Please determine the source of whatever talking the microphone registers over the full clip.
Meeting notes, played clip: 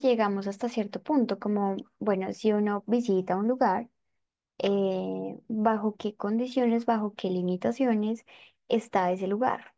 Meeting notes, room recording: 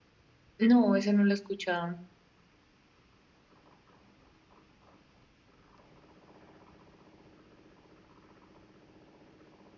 user only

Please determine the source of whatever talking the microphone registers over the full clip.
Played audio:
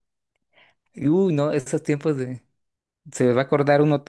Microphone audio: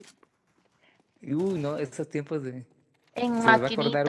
both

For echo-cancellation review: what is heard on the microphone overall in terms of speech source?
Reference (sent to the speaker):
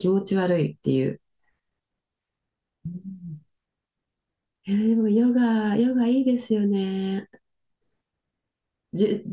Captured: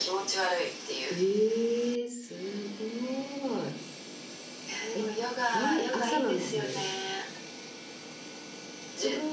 both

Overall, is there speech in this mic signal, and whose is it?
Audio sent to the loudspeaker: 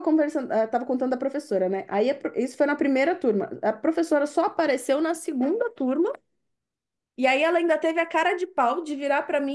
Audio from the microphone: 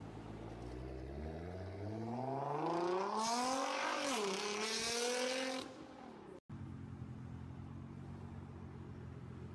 neither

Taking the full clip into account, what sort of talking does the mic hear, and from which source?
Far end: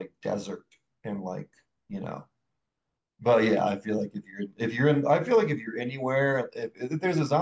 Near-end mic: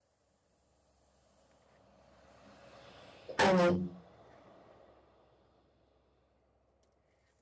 user only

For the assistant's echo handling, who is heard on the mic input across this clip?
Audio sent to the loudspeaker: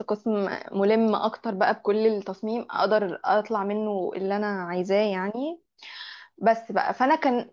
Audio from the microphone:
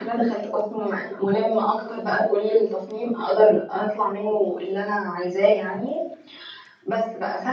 echo only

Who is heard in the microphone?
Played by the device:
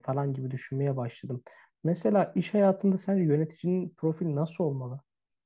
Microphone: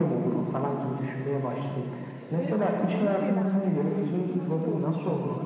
both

